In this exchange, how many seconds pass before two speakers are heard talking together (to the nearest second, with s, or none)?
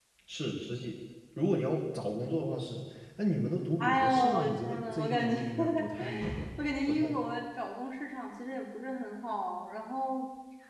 4 s